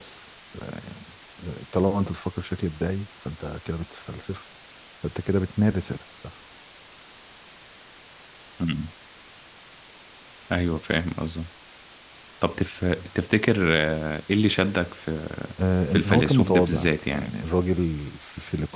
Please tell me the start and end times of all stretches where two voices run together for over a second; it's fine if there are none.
15.9-17.3

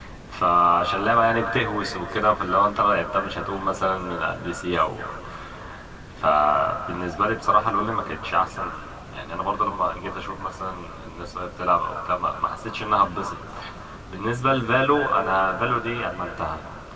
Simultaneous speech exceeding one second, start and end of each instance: none

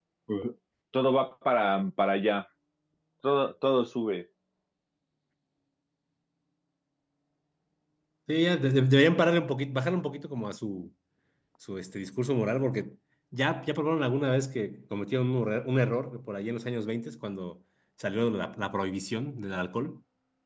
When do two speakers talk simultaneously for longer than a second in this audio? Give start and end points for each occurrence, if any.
none

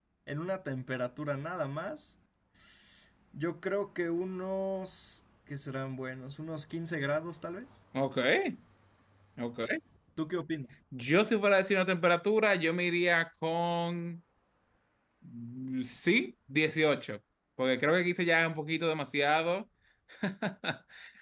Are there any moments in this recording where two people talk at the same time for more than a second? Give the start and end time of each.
none

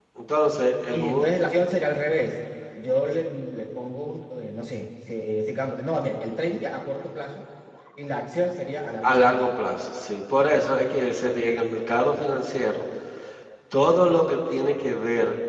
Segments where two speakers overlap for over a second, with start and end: none

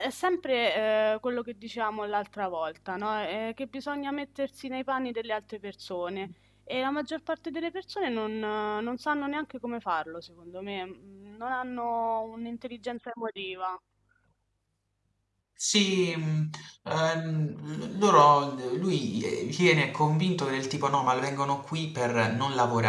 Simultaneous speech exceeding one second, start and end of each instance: none

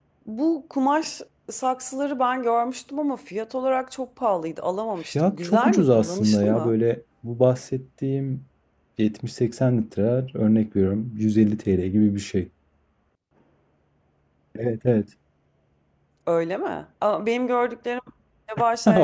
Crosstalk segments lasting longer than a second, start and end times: 5.1-6.7

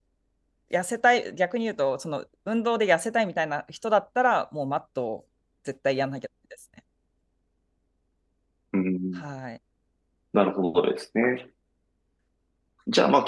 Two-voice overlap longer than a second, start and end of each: none

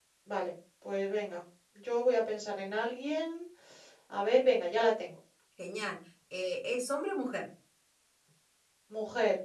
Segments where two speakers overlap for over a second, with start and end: none

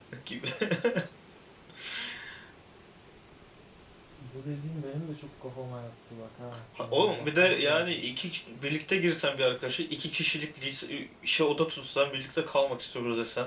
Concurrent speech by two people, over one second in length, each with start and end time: 6.8-8.0

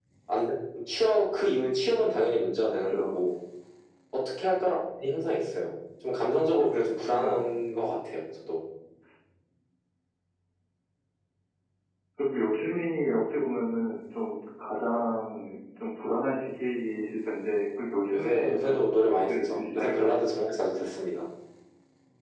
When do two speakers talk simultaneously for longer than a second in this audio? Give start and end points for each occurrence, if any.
18.1-20.2

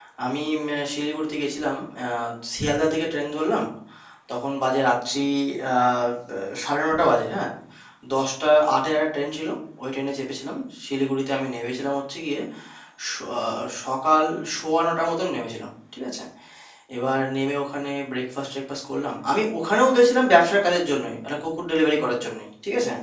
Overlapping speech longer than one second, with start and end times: none

